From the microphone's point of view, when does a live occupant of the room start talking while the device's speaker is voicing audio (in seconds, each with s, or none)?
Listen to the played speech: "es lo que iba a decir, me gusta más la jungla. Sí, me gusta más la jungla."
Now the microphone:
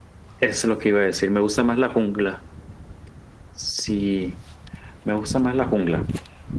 none